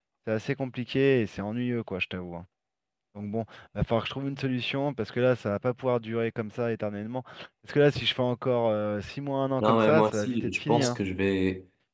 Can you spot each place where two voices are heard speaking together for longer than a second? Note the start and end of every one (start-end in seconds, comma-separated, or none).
9.6-11.0